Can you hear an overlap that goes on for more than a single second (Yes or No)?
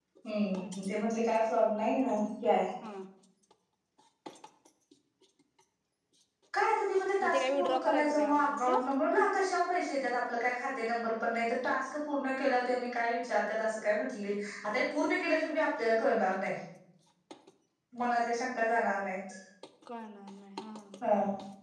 Yes